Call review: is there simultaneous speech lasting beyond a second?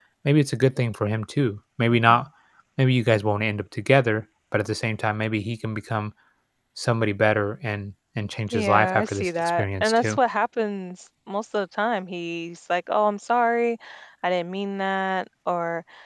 Yes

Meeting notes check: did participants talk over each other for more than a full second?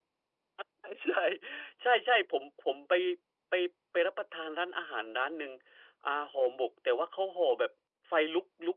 No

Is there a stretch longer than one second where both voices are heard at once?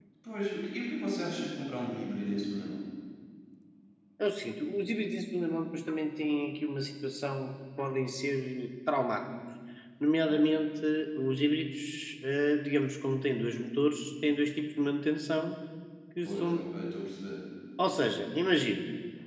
No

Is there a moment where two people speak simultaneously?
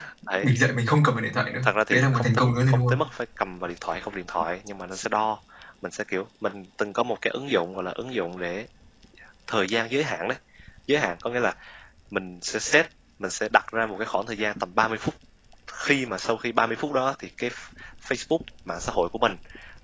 Yes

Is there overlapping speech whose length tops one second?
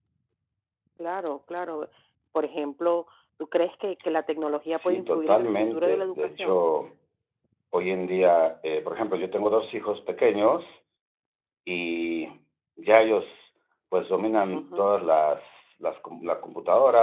Yes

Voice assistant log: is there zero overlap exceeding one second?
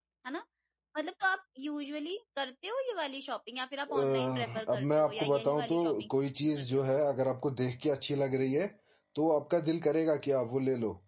No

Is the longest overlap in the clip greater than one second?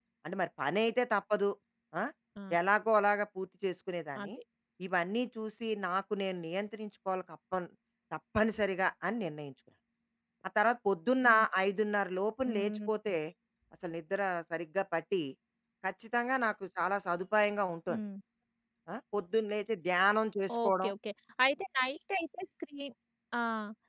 No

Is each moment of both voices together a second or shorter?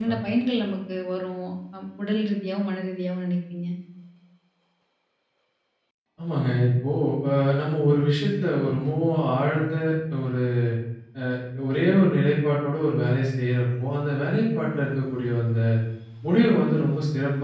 Yes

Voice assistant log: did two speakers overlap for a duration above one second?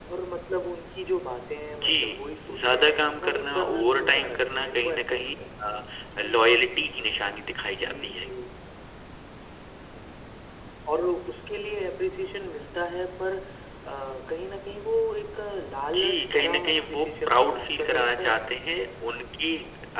Yes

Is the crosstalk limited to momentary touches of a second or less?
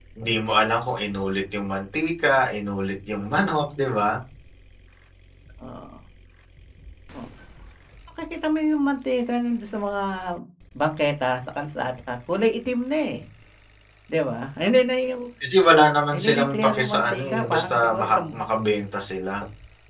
No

